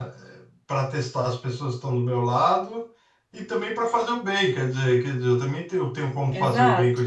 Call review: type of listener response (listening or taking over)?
taking over